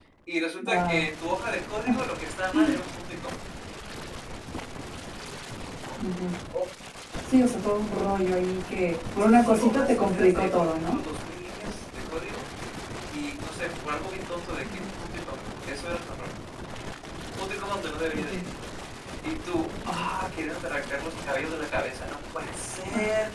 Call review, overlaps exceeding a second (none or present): present